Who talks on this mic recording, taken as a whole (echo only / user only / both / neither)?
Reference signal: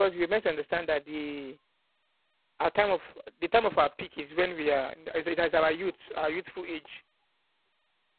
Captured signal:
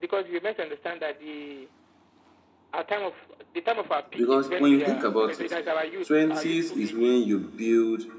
both